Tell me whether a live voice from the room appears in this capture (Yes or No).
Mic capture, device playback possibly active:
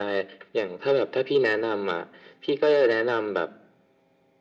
No